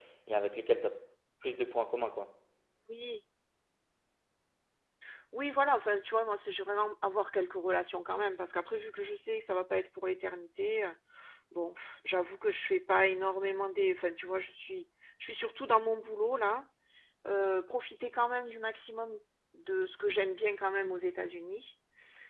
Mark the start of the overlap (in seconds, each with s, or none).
none